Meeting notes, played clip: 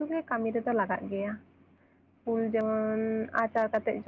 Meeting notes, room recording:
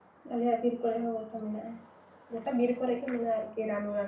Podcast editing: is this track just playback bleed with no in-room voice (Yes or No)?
No